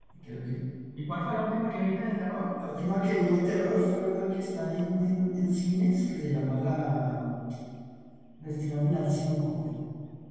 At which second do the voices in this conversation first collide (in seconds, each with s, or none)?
none